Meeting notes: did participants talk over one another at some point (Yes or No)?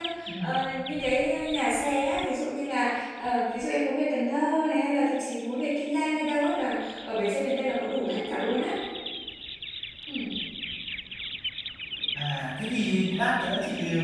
No